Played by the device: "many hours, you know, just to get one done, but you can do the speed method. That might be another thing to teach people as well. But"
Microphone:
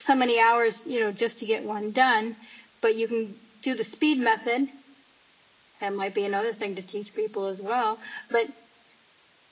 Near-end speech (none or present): none